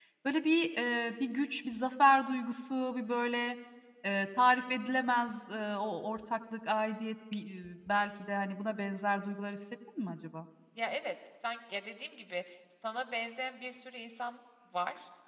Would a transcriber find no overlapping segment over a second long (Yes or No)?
Yes